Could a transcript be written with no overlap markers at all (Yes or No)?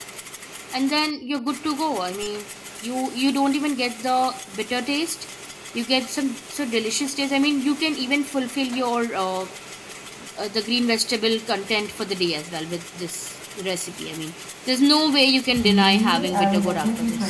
No